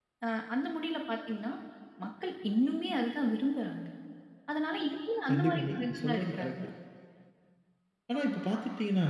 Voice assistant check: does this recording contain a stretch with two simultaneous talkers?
Yes, from 5.3 s

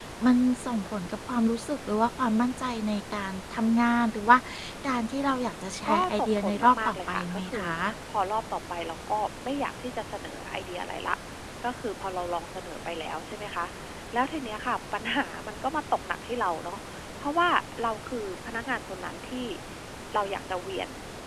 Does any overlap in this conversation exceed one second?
Yes, from 5.8 s

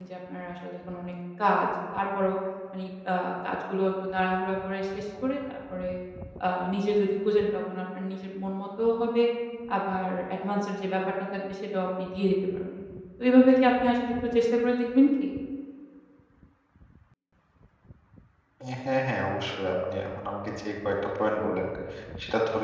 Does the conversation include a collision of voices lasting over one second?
No

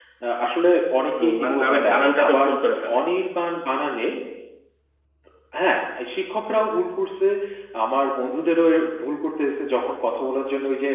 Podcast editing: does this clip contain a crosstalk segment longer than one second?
Yes, from 1.2 s

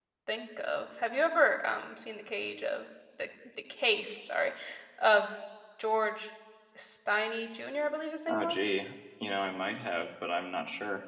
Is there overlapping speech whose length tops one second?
No

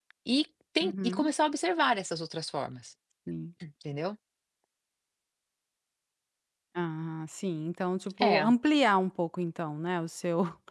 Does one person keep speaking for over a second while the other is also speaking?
No

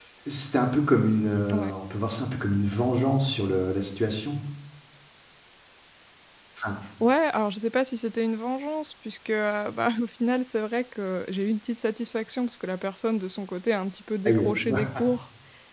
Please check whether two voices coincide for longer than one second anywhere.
No

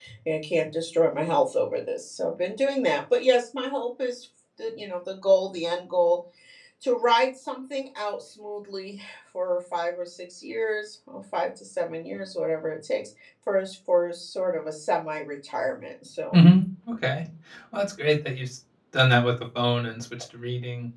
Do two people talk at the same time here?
No

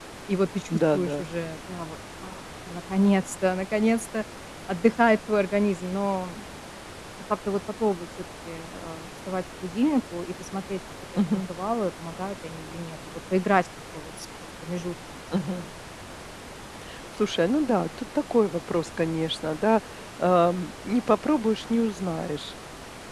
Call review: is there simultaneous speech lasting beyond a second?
No

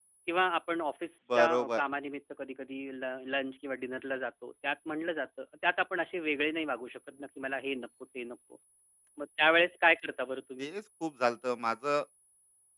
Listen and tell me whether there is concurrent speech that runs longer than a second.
No

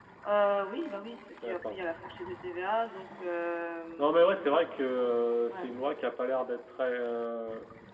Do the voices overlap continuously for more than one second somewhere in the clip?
No

